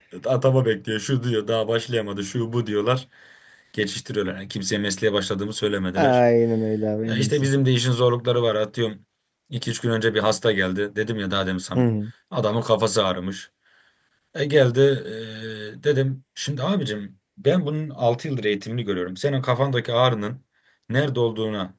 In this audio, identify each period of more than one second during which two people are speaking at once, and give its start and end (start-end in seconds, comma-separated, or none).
none